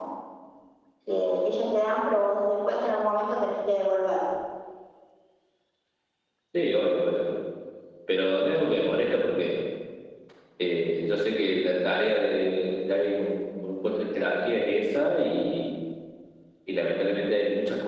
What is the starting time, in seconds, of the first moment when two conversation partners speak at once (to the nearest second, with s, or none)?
none